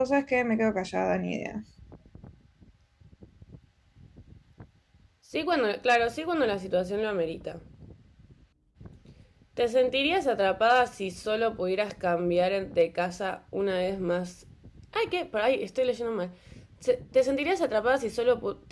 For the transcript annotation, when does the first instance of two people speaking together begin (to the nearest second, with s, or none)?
none